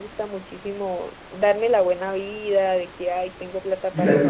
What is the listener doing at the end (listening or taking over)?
listening